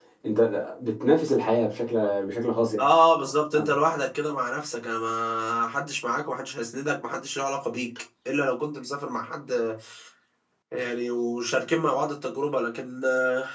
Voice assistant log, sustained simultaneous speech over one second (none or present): none